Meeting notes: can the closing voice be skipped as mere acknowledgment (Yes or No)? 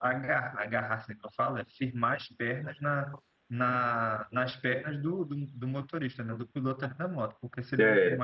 Yes